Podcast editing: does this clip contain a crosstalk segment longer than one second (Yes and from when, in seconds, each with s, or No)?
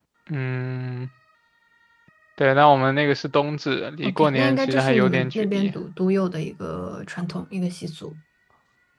Yes, from 4.0 s